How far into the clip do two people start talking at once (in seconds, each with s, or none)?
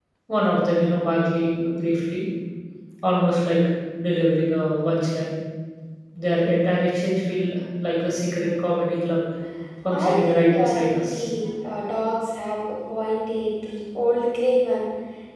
9.9 s